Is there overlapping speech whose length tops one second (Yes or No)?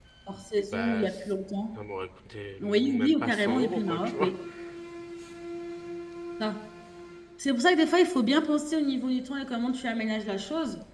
Yes